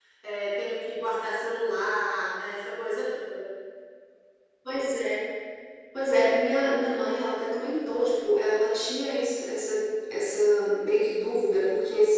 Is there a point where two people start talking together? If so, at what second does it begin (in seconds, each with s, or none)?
none